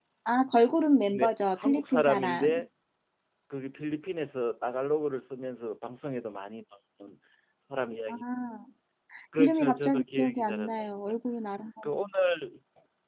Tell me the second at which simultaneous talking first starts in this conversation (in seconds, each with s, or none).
1.1 s